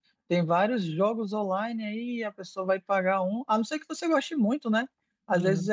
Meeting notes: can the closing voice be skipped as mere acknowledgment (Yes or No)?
Yes